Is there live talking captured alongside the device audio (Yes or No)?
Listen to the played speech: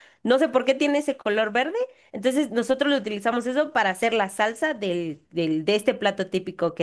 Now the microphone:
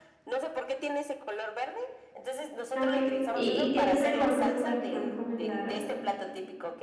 Yes